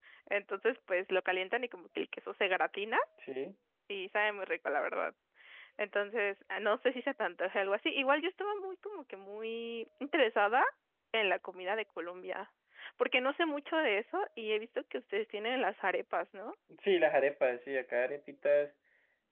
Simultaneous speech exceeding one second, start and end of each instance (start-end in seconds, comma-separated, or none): none